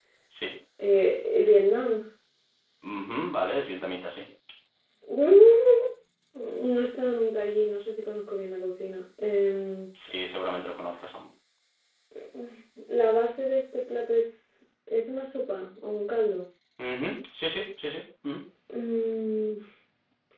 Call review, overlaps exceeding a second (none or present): none